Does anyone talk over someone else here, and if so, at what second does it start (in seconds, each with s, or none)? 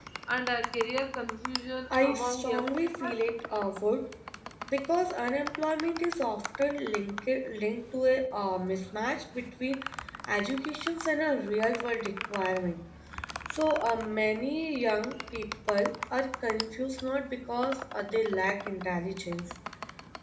1.9 s